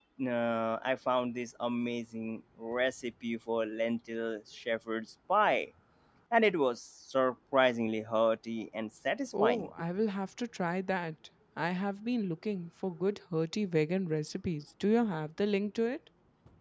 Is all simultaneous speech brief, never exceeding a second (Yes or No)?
Yes